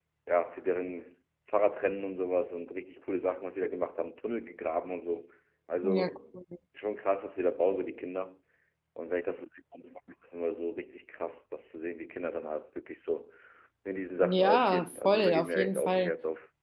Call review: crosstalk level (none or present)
present